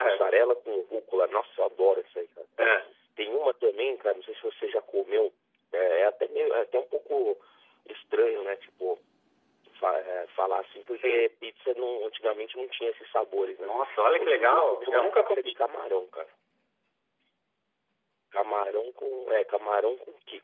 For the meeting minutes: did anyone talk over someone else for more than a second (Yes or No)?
Yes